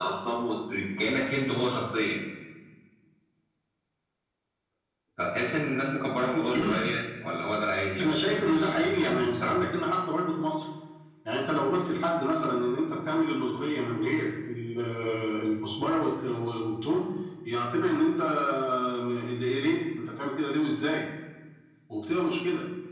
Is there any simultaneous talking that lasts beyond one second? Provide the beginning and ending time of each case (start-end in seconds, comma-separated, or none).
8.0-9.6